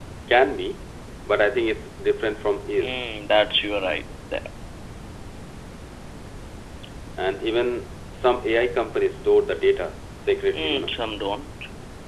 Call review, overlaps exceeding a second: none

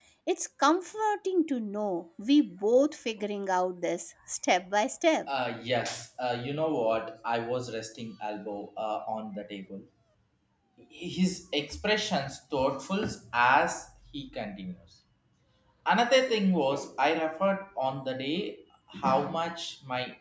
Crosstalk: none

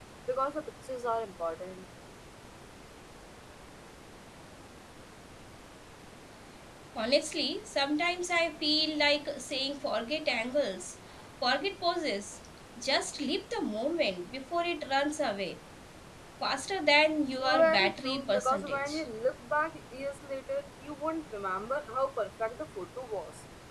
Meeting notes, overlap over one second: present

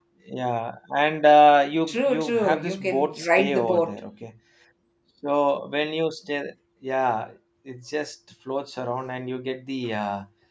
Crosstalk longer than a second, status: present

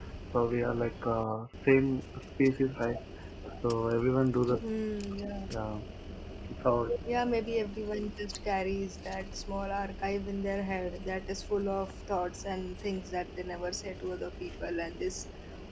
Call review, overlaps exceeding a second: none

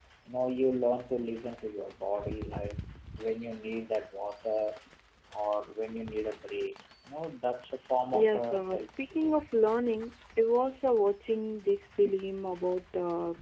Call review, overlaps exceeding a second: present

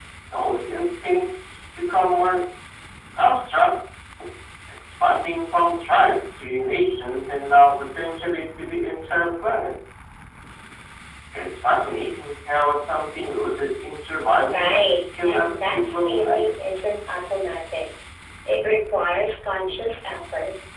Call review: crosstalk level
present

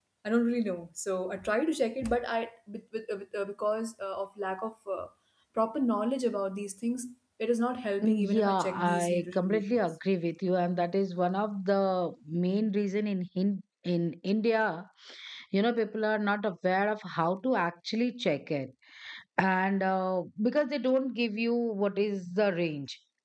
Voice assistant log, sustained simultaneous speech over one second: present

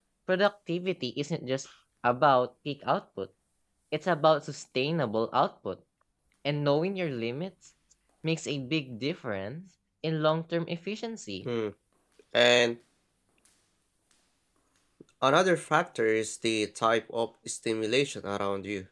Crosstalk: none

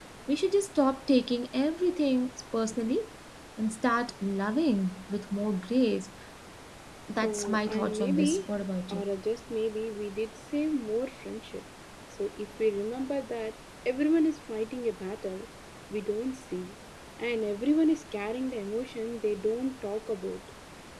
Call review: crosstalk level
present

